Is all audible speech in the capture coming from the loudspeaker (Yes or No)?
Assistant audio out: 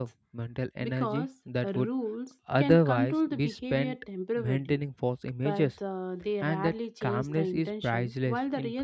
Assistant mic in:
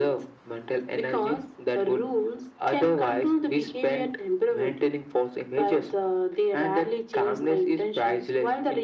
Yes